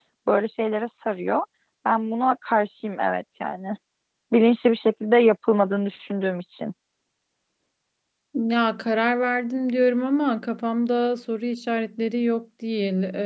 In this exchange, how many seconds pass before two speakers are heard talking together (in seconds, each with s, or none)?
none